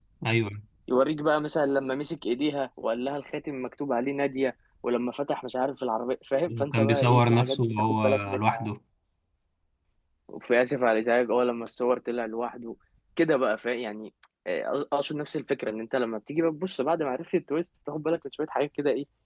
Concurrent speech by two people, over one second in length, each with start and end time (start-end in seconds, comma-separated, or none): 6.6-8.7